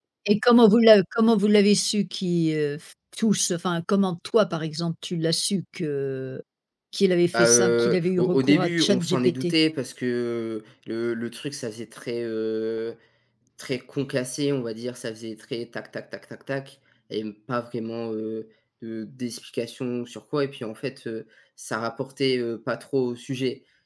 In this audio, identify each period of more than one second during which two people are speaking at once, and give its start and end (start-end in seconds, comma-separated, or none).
7.3-9.5